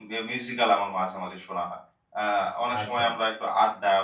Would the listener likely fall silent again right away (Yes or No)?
Yes